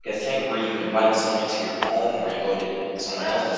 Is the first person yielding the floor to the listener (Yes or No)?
Yes